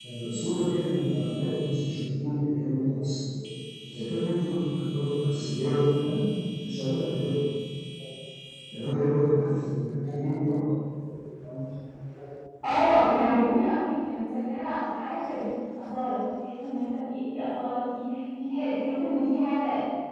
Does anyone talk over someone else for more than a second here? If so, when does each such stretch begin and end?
none

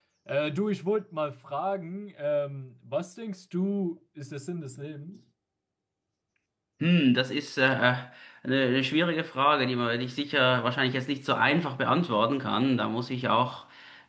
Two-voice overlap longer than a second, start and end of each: none

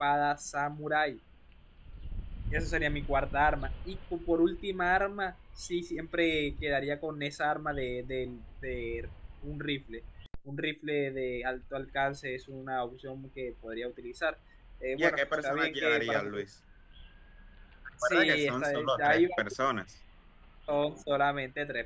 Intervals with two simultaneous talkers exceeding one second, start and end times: 15.0-16.2, 18.0-19.3

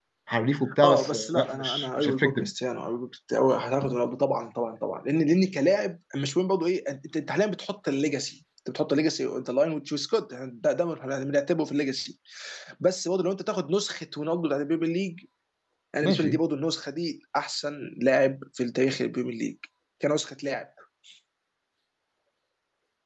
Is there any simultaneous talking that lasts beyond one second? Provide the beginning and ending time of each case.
0.8-2.5

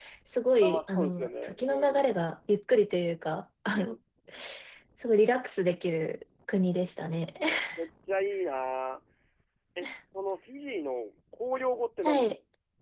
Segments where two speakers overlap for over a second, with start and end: 0.6-2.0

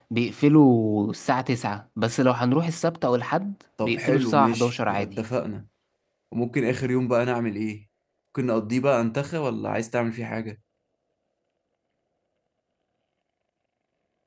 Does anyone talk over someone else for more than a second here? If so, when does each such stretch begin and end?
3.8-5.2

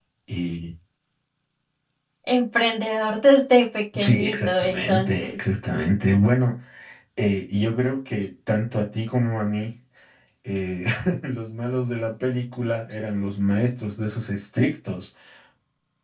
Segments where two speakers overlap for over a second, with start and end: 4.0-5.3

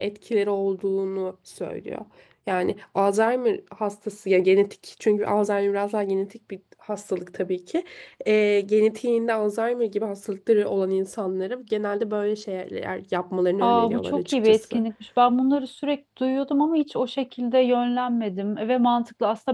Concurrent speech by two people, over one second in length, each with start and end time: 13.6-14.8

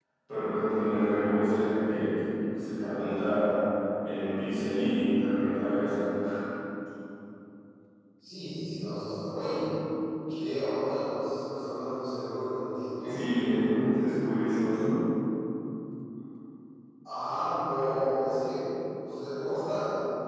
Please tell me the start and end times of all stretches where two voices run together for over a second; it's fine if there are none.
none

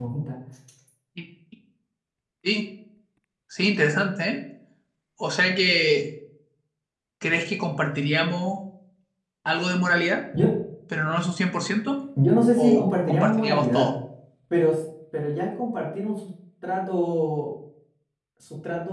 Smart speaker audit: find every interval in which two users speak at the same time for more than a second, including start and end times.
12.6-13.9

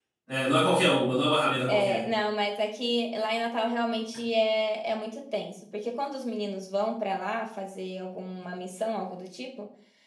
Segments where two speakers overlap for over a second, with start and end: none

